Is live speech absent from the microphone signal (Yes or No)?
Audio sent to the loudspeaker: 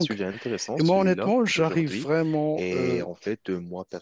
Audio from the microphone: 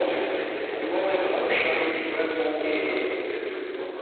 Yes